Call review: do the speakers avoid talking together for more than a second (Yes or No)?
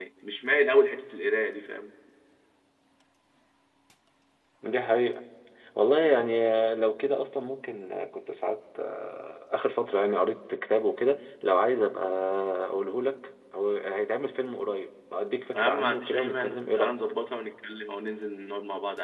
No